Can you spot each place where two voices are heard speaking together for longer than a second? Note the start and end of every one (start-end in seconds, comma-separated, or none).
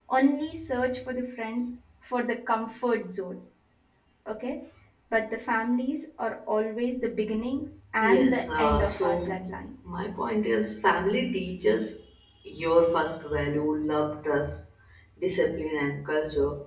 8.0-9.3